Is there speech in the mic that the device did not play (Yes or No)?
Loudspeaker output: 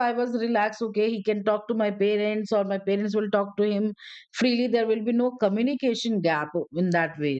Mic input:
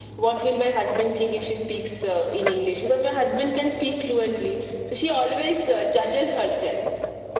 Yes